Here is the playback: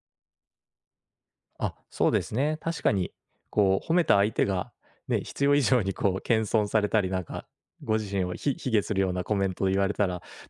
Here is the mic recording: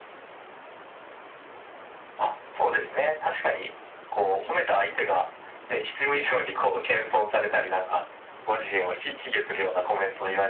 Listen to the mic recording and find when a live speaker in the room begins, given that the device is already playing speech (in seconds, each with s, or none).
none